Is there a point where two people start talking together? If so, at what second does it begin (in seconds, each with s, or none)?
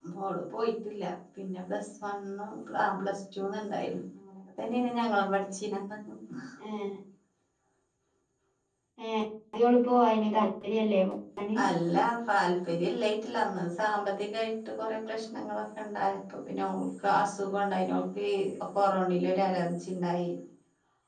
none